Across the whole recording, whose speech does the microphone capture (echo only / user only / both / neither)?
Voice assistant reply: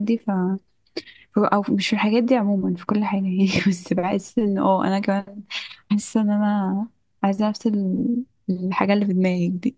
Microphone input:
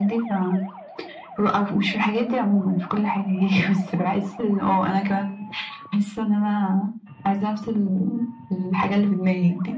echo only